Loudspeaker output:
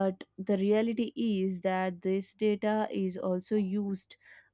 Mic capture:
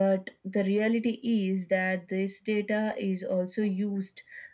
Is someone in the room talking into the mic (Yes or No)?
No